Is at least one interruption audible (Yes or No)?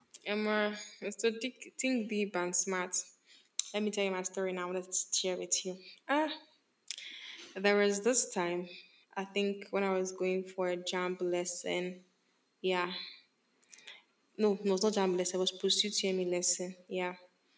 No